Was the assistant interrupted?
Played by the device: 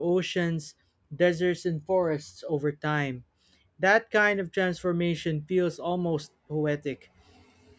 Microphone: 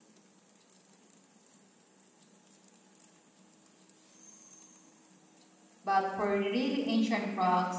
Yes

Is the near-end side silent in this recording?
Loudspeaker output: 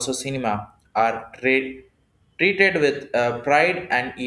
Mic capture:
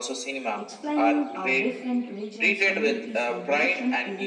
No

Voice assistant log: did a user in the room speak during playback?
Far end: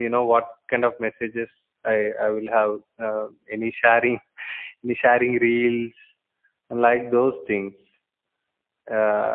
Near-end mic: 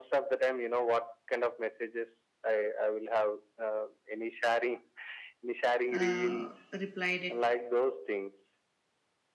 Yes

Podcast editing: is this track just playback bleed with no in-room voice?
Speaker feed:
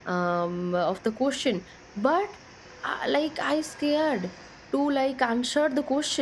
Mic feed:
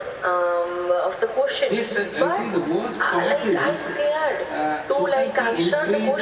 No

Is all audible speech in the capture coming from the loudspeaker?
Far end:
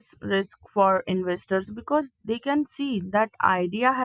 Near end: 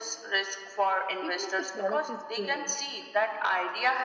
No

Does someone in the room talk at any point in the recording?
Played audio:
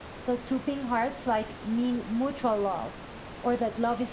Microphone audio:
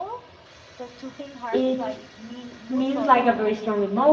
Yes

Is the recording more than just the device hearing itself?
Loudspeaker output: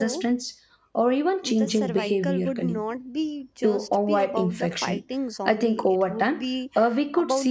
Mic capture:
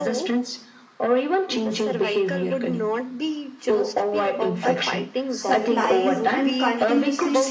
Yes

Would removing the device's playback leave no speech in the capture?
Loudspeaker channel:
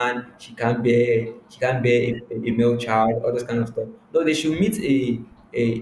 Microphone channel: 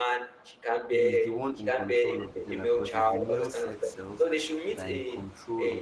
No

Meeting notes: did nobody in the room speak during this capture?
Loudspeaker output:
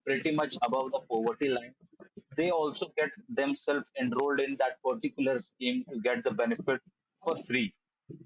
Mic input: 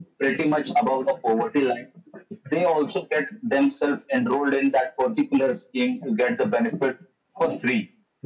Yes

